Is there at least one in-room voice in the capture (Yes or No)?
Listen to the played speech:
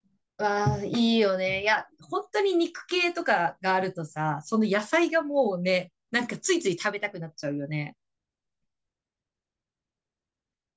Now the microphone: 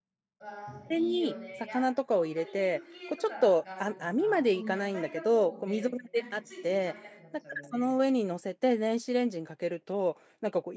Yes